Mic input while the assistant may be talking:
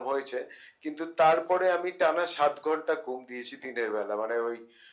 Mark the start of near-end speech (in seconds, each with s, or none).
none